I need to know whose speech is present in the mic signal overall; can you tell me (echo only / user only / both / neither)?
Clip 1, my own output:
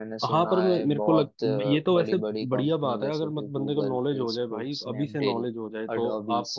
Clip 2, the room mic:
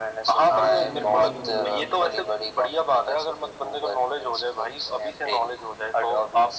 both